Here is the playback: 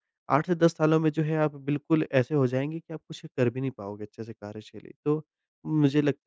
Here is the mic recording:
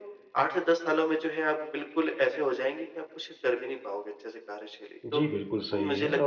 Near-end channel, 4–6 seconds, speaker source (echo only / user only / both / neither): both